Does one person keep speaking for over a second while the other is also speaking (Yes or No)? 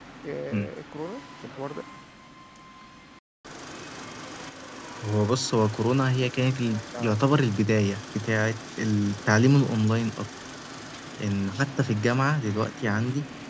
No